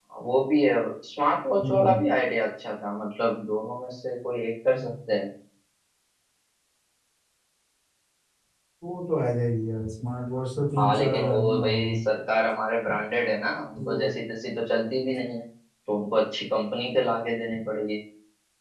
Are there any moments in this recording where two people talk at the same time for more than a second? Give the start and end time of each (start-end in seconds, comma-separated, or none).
10.8-12.0